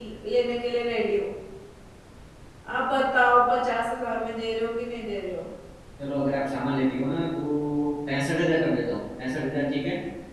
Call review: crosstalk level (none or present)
none